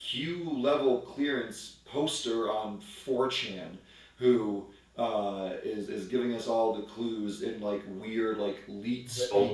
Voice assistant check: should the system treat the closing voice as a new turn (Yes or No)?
No